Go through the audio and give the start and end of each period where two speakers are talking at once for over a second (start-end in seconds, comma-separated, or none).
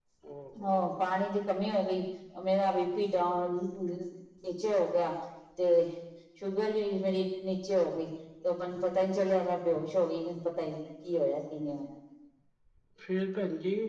none